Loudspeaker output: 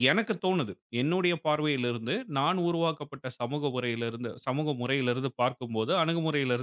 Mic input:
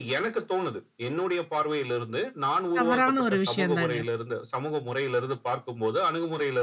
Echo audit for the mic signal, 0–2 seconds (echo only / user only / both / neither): echo only